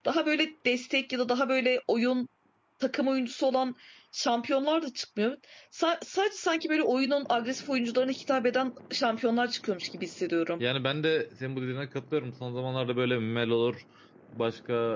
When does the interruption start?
none

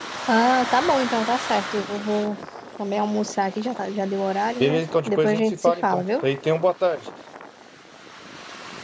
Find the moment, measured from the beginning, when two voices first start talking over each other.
4.6 s

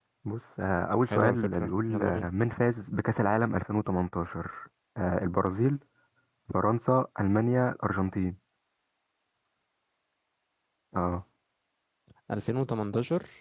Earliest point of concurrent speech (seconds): 1.1 s

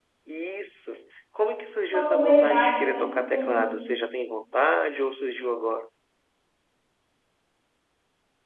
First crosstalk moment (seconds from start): 1.9 s

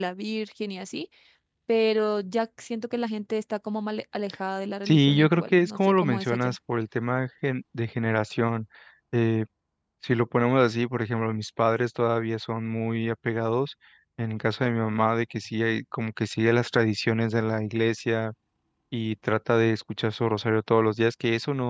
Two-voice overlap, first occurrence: 4.8 s

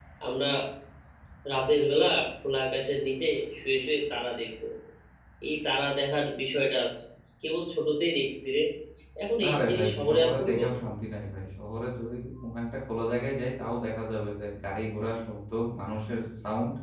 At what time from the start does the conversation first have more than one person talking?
9.4 s

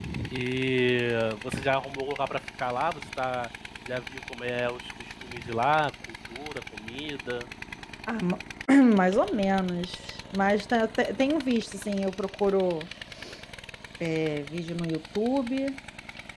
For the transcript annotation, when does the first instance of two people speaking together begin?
none

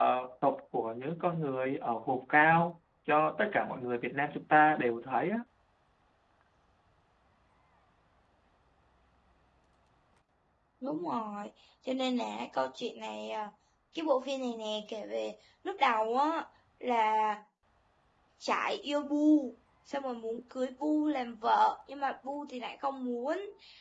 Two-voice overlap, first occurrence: none

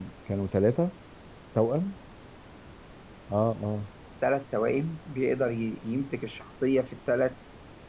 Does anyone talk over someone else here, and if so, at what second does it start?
none

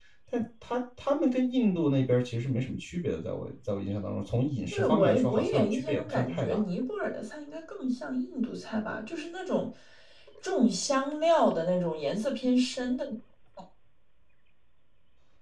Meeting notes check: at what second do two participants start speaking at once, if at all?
4.7 s

